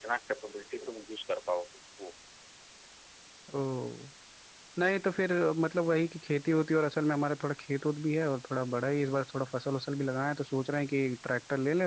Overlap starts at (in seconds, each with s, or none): none